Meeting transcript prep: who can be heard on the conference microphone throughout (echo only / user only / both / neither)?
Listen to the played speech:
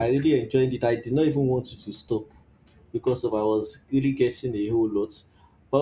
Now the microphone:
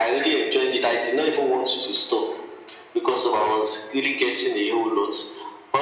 echo only